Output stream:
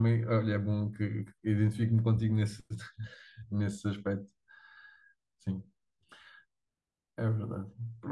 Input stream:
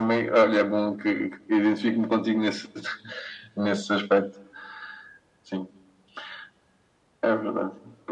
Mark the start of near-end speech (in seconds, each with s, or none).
none